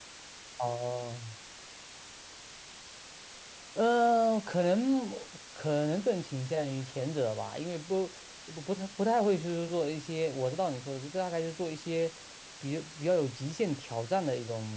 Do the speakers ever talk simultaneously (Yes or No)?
No